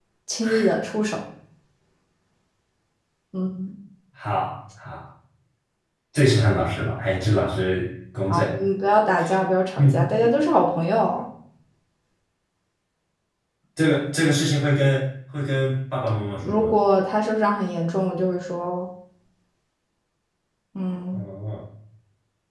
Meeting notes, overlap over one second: none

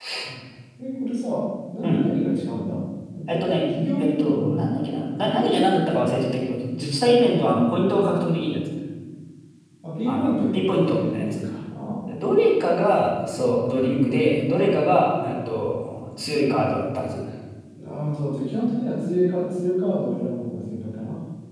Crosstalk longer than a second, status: present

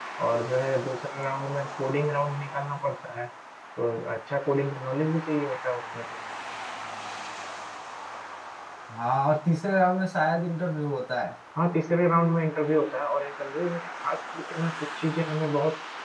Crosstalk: none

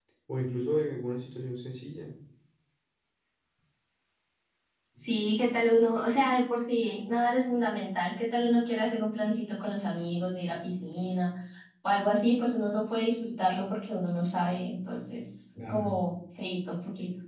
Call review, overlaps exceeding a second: none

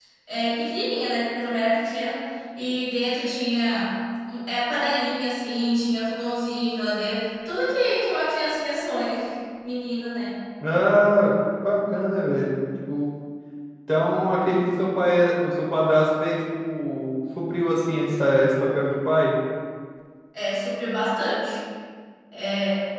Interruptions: none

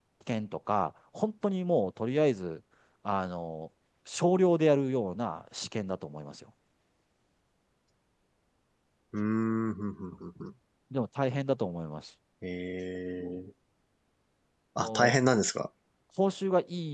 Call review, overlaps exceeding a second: none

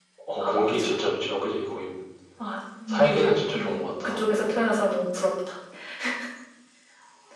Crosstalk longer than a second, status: present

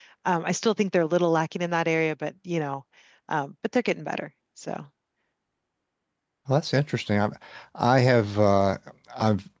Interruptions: none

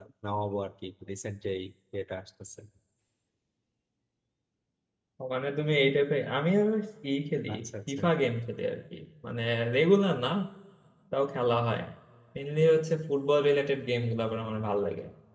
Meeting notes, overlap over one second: none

